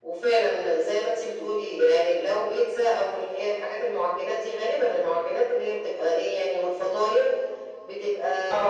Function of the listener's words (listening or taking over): listening